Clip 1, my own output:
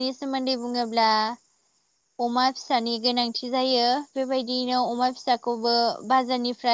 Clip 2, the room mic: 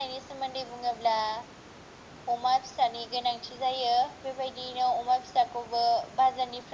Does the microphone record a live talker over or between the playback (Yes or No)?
No